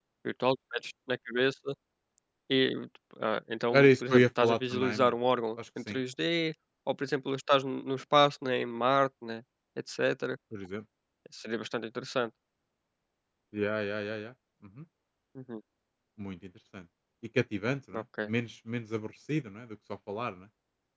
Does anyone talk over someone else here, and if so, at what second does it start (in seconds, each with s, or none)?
3.7 s